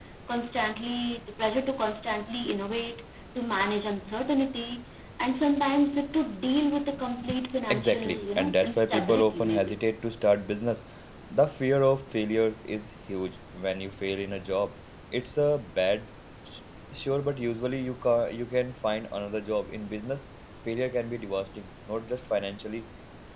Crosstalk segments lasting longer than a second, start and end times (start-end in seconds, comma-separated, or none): 7.7-9.8